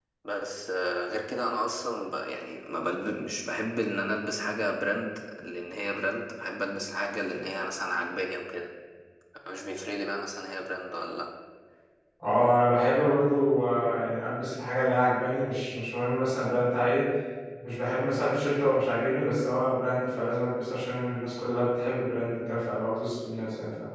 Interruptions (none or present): none